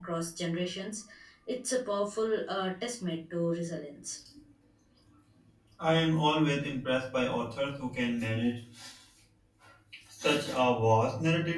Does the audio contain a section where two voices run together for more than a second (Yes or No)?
No